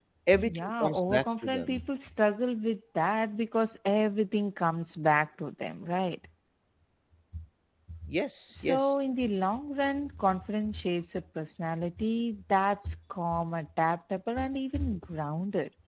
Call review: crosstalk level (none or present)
present